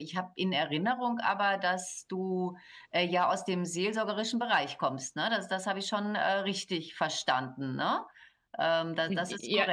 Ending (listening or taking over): taking over